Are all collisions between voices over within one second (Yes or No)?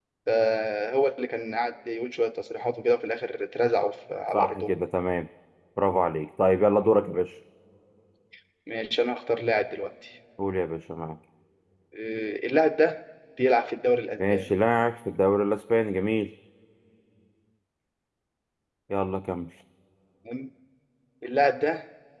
Yes